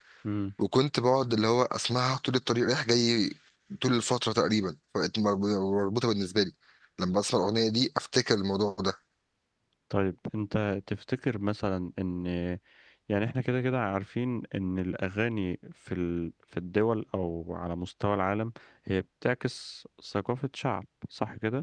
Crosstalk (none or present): none